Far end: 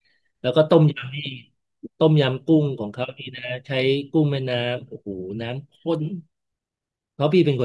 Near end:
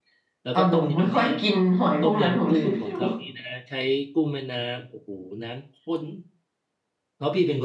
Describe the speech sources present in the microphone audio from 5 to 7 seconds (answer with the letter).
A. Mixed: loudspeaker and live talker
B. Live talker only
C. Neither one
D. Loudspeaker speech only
D